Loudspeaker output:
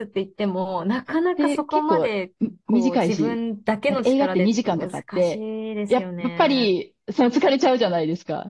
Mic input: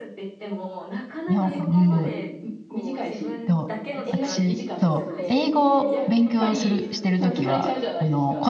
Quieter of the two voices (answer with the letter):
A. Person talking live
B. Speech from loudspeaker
B